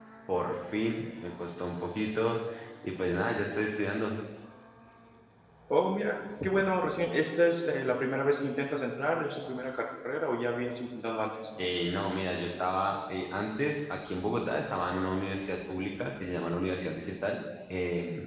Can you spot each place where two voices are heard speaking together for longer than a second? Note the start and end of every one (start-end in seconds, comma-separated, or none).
none